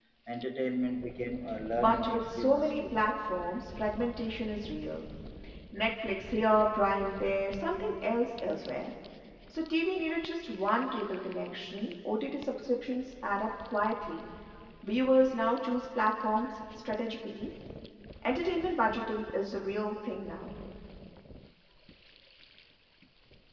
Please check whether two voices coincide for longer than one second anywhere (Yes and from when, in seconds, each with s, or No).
Yes, from 1.8 s